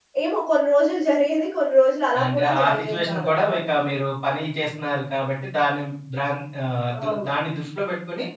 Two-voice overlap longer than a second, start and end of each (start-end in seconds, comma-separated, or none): 2.2-3.6